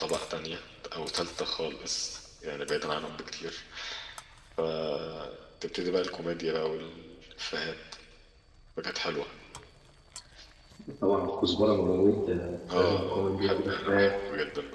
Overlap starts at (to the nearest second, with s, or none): 13 s